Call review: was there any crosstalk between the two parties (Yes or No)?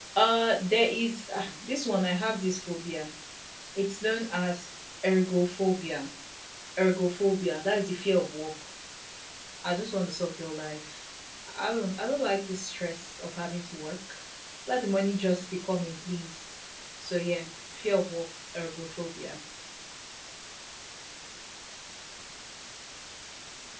No